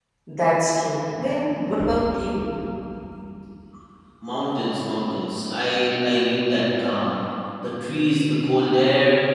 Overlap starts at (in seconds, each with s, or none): none